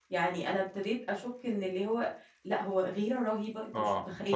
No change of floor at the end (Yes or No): No